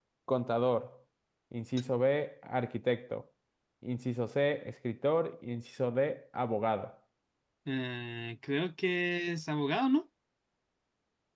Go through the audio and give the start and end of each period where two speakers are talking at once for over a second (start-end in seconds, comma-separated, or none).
none